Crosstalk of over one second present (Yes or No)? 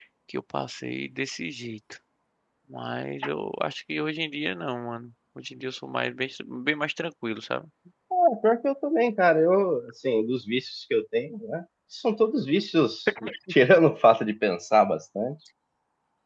No